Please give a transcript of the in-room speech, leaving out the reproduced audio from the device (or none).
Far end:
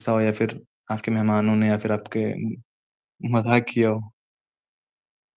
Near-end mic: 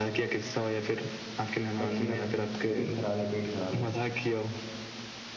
बच्चे का तबीयत ख़राब है, पेट ख़राब है,